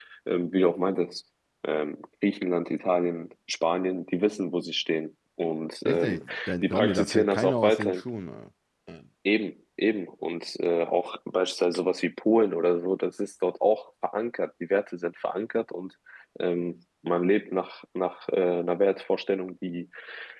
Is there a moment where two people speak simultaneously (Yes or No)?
Yes